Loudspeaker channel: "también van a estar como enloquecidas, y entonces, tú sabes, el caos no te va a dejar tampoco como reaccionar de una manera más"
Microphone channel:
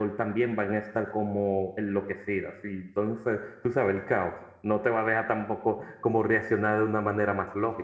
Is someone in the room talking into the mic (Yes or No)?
No